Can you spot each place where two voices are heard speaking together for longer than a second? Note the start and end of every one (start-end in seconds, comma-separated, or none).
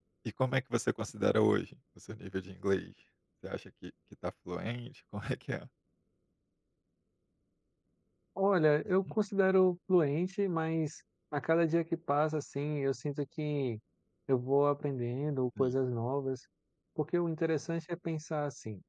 none